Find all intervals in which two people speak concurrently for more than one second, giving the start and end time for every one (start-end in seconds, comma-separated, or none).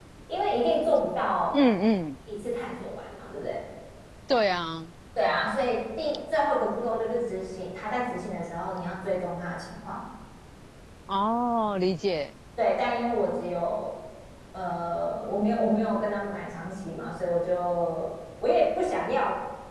none